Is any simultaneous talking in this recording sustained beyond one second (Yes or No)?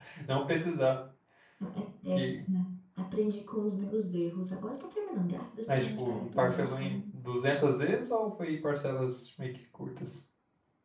Yes